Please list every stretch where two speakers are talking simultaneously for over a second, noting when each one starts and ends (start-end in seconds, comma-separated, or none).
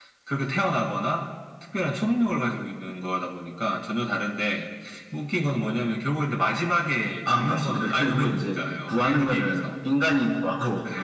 7.3-9.7